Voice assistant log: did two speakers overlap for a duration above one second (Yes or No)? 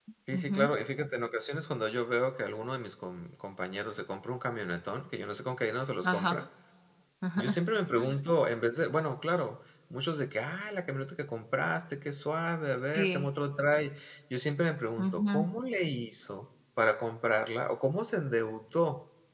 No